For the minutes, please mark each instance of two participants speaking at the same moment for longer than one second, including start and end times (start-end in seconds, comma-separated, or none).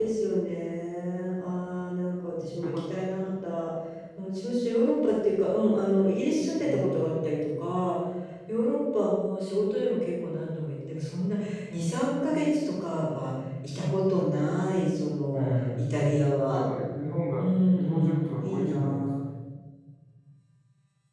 17.4-19.1